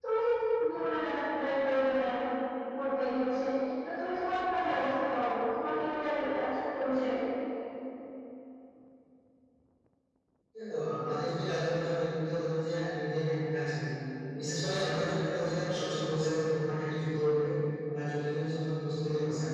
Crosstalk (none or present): none